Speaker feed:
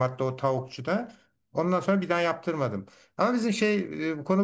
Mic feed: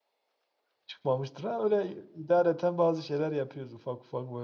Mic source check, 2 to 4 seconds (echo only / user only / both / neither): user only